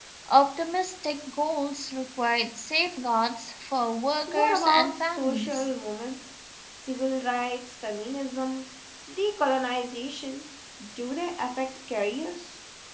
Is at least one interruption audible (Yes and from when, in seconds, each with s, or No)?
Yes, from 4.3 s